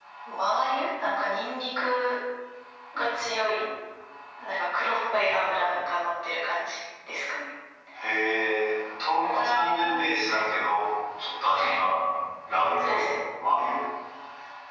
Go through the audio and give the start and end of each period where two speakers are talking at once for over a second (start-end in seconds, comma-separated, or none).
9.2-10.5